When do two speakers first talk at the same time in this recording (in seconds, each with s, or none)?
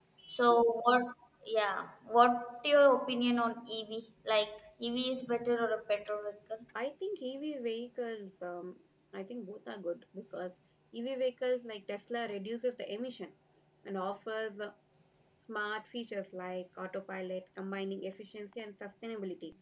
none